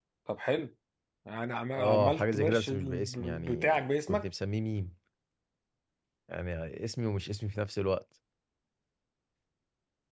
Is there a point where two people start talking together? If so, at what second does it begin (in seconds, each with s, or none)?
1.7 s